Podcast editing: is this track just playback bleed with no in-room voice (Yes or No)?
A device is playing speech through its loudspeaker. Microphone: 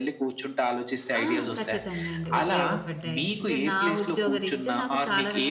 No